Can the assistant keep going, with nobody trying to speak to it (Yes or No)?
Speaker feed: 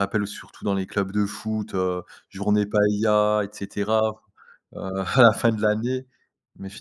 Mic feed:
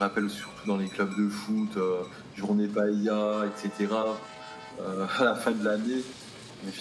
Yes